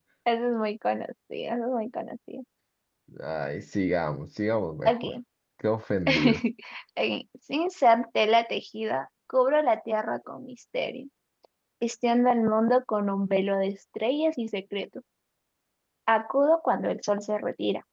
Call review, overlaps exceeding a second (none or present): none